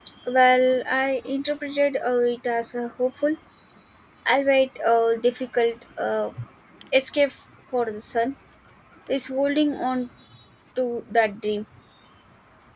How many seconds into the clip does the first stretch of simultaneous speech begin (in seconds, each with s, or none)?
none